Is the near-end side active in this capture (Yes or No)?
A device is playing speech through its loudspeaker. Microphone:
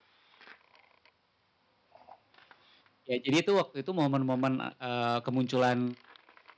Yes